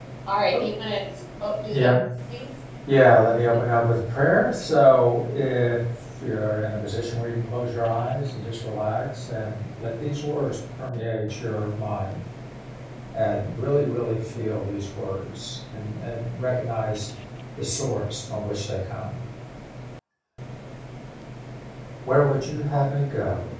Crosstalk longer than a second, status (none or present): none